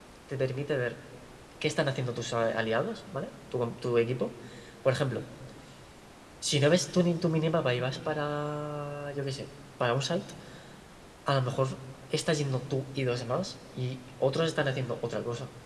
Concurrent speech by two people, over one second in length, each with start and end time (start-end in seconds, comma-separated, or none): none